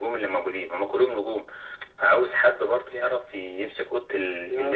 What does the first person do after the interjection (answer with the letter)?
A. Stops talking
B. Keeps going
A